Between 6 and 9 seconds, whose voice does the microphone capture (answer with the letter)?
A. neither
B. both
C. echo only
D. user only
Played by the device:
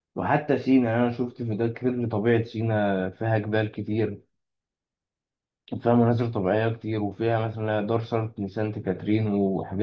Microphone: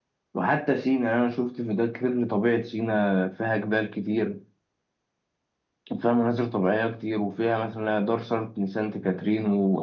C